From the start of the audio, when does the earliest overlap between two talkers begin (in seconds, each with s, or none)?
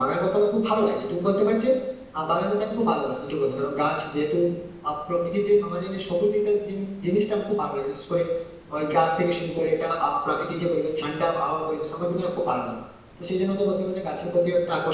none